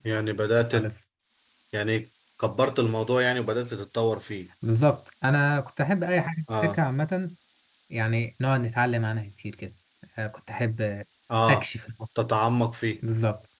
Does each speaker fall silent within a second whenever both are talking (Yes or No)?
Yes